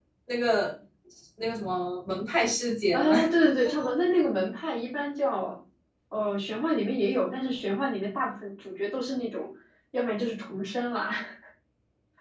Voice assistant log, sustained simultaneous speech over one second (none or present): none